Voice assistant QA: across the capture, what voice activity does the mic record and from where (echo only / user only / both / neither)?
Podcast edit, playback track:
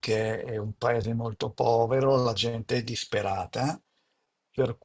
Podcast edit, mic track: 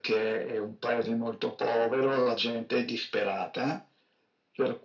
echo only